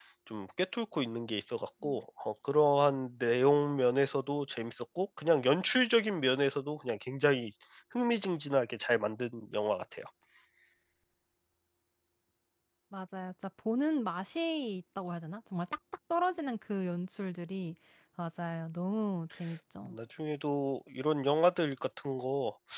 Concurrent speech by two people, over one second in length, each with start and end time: none

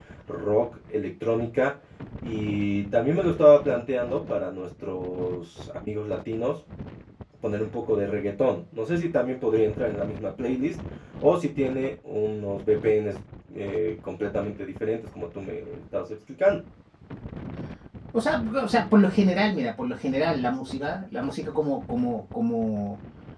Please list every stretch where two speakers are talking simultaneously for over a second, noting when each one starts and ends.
none

